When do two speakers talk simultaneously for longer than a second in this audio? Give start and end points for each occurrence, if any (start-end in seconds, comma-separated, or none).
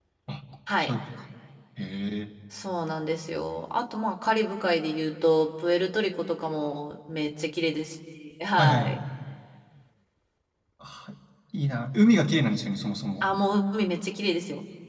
none